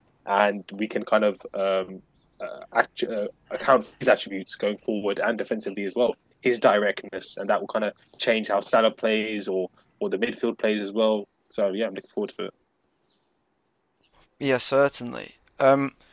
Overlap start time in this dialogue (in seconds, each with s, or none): none